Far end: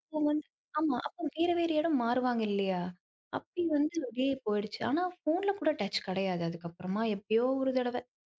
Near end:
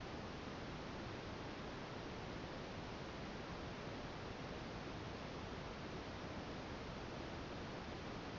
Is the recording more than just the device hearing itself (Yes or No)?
No